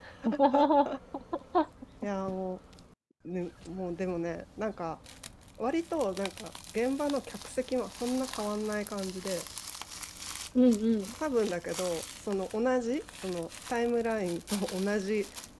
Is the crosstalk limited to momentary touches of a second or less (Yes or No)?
Yes